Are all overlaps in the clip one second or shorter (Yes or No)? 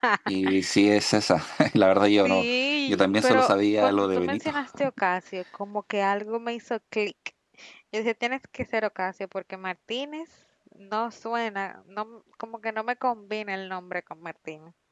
No